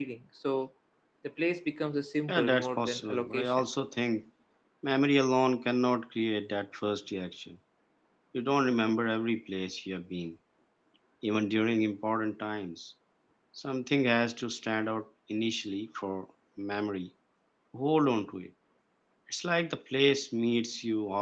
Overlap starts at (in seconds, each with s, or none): 2.3 s